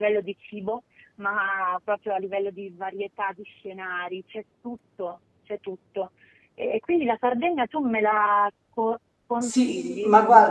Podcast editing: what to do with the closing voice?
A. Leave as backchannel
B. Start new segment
B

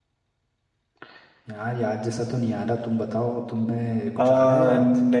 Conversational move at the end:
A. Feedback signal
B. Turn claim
B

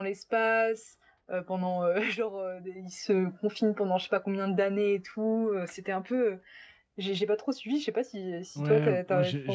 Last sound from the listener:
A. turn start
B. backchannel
A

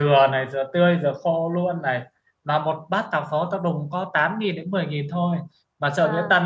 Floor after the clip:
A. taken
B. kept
B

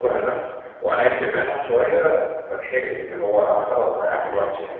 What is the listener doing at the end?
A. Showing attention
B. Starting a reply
B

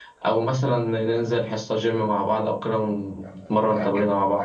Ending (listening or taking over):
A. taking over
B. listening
A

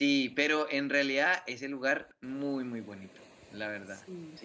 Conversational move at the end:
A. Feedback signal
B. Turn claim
B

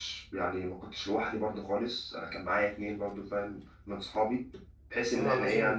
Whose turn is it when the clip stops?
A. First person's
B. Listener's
B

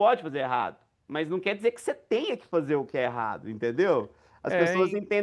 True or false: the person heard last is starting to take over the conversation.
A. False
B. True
A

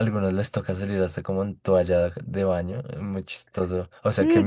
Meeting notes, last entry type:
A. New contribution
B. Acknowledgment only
A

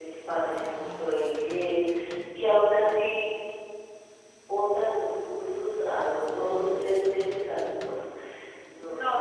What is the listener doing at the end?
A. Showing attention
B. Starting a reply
B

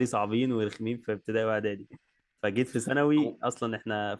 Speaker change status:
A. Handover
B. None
B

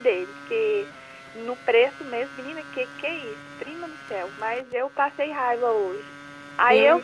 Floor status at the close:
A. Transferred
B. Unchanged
B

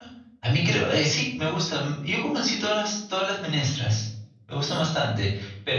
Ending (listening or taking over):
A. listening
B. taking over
A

